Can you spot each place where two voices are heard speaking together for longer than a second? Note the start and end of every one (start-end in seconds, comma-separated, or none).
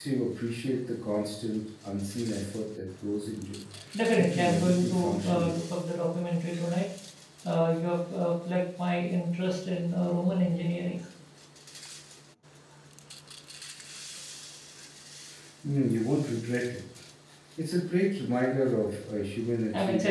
4.2-5.6